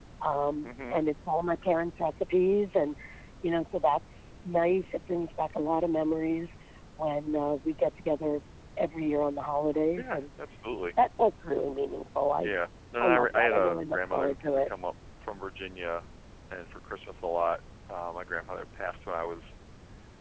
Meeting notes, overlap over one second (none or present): present